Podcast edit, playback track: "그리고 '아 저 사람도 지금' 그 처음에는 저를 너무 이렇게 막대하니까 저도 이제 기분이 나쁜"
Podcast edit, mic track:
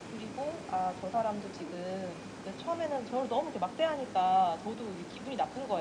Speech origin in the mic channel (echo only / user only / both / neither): echo only